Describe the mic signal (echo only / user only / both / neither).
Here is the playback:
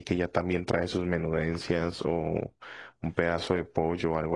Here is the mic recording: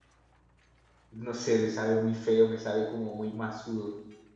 user only